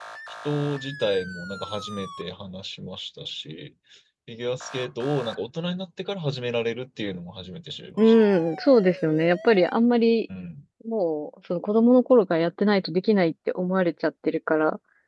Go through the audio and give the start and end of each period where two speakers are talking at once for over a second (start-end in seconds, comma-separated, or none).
none